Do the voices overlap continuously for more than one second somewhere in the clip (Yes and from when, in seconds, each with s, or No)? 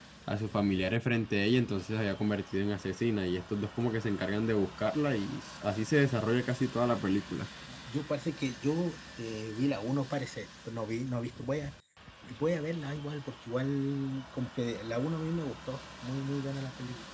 No